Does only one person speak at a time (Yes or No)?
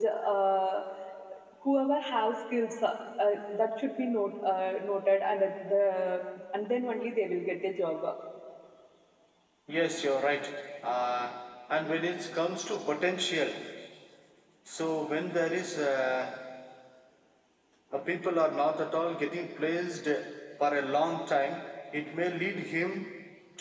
Yes